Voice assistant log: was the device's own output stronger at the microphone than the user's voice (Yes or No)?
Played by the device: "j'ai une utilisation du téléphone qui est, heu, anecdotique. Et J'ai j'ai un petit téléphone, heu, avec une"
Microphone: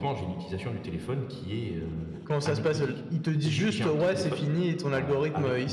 No